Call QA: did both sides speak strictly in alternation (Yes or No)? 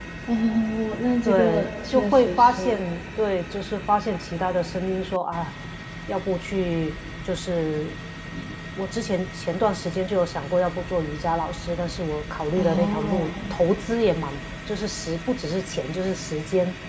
No